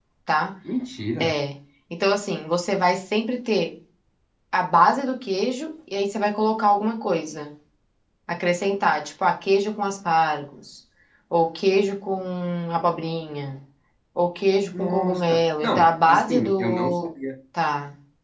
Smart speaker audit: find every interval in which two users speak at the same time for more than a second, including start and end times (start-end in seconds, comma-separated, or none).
14.8-17.1